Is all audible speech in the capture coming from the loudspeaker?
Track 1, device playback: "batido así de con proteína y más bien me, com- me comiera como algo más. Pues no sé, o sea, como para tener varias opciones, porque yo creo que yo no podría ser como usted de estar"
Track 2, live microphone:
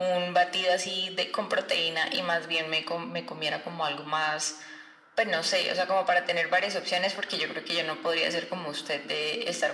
Yes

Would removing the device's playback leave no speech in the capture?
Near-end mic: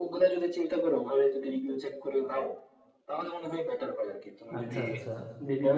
No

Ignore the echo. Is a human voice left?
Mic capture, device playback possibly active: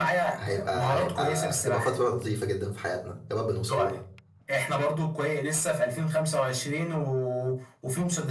Yes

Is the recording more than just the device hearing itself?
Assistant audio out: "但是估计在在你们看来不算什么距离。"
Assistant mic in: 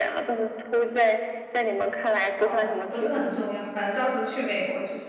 Yes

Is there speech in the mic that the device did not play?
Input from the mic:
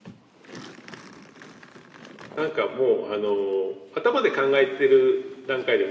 Yes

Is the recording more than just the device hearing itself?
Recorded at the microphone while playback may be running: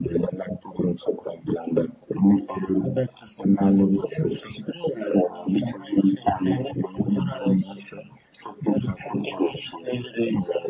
No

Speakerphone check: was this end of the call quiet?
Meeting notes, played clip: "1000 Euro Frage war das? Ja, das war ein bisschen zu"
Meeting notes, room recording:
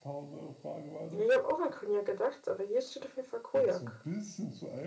No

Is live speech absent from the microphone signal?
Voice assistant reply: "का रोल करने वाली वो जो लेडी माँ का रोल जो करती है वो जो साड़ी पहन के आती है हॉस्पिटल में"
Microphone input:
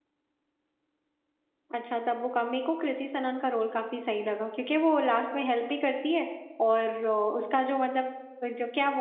No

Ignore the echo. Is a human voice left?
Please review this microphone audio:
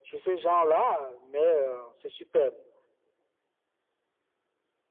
No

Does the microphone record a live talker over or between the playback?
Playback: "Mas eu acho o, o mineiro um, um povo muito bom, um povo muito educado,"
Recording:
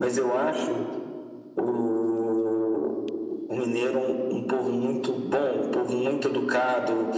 No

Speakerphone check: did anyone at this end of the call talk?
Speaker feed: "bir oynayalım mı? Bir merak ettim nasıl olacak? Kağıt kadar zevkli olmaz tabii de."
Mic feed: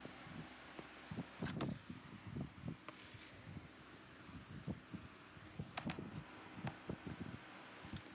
No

